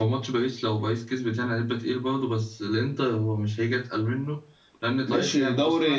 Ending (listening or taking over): taking over